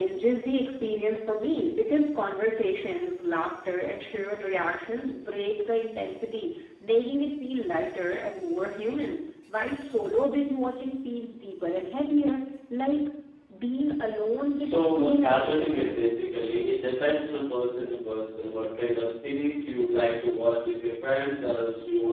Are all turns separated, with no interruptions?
No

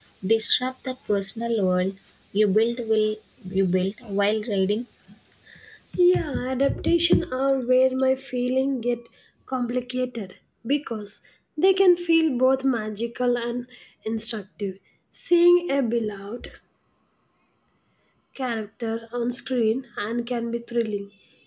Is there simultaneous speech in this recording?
No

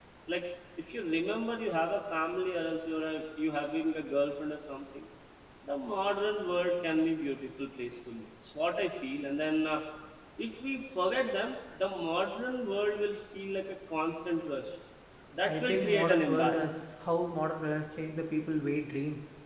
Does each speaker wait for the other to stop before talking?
No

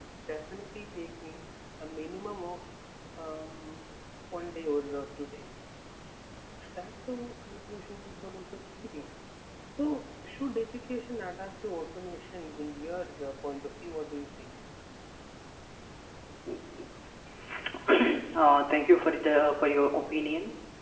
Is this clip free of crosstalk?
Yes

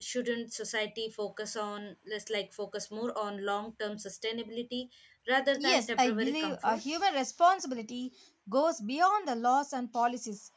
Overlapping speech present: Yes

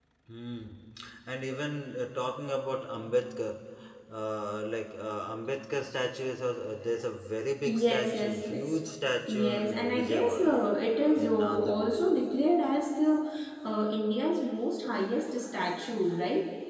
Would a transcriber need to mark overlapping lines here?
Yes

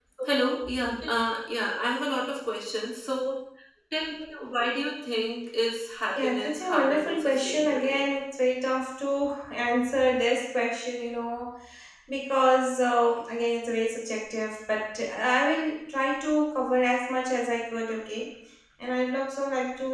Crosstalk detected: Yes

